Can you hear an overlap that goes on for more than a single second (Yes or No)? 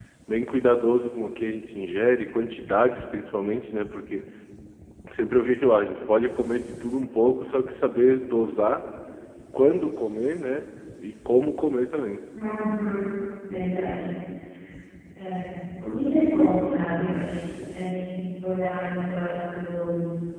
No